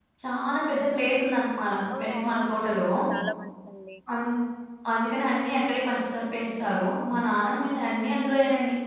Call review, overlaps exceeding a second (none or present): none